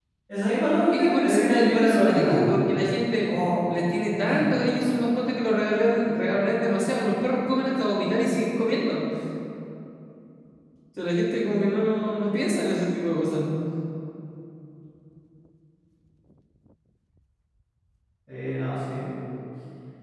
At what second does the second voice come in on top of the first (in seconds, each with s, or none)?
0.9 s